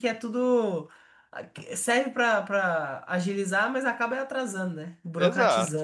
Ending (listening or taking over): taking over